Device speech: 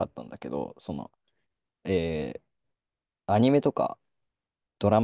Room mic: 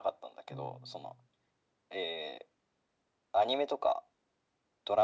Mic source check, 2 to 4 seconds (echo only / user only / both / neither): echo only